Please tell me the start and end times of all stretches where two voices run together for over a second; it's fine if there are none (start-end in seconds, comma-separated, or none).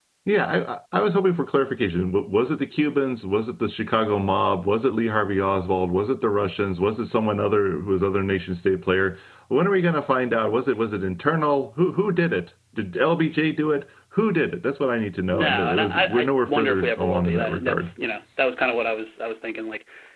15.3-17.9